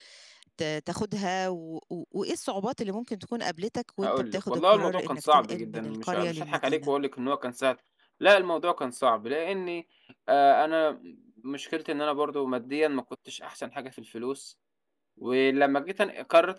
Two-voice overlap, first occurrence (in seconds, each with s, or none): 4.0 s